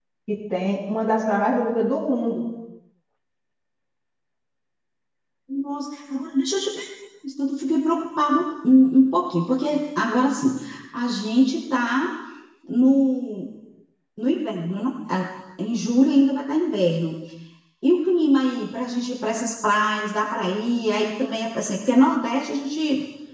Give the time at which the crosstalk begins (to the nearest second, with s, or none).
none